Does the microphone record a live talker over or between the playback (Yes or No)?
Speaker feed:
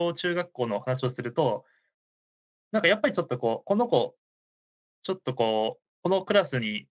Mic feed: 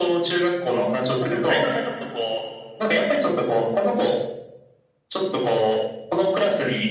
Yes